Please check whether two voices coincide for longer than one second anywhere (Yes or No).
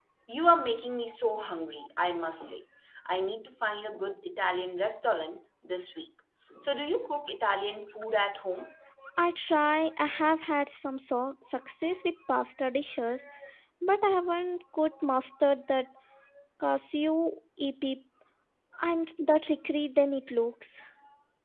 No